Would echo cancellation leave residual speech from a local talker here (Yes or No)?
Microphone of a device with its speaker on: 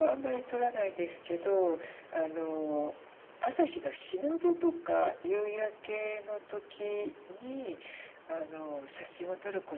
No